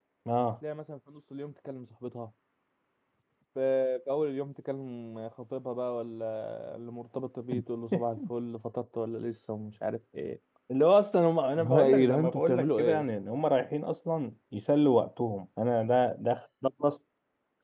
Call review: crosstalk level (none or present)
present